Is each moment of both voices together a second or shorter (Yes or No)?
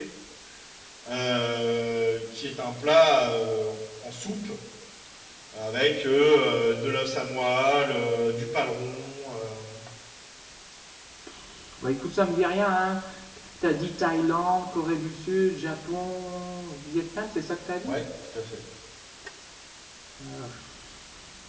Yes